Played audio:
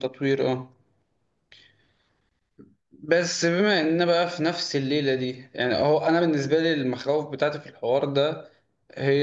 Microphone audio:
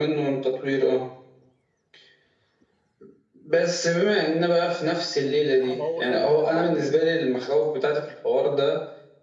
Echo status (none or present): present